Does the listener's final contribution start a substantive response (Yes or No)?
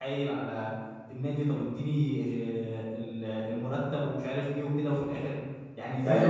Yes